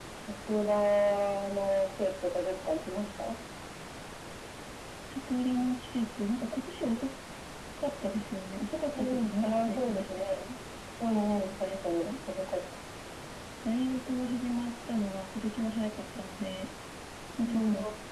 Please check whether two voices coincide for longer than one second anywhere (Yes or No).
Yes